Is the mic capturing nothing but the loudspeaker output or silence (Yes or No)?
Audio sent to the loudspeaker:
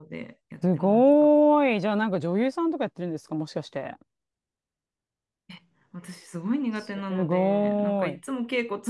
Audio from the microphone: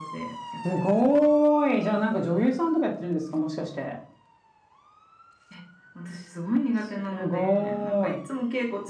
Yes